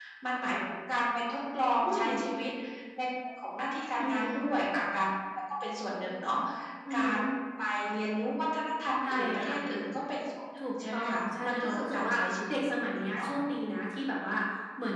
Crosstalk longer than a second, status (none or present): present